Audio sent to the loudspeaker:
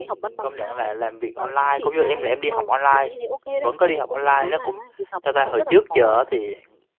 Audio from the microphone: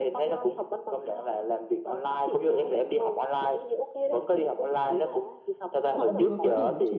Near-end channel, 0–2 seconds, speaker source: echo only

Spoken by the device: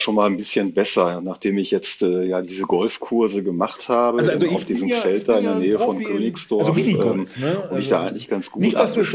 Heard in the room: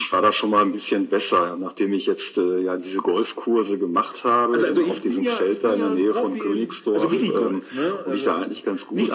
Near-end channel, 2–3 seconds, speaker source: echo only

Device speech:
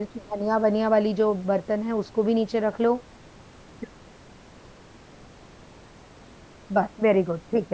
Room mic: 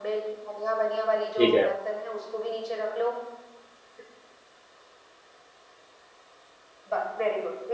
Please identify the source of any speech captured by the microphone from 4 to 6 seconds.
neither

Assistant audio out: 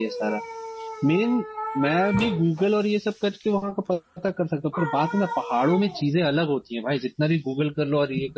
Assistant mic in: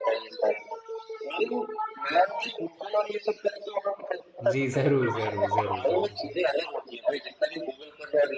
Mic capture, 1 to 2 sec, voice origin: echo only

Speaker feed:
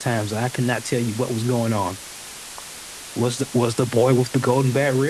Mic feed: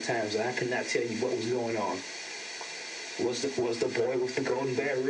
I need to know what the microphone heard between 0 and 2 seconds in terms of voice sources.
echo only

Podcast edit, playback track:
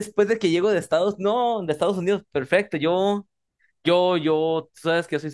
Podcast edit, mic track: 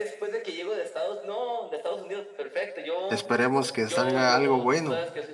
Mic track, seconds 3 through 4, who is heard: both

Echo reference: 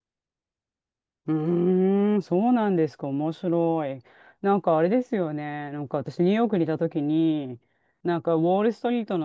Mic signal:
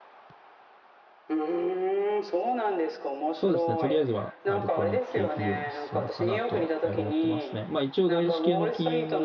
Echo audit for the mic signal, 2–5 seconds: both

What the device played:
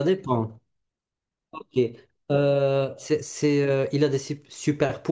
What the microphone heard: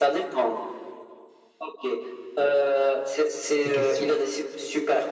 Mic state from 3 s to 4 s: both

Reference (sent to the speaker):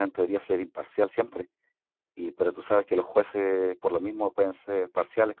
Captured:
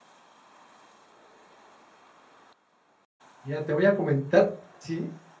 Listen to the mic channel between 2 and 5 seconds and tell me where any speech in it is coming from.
user only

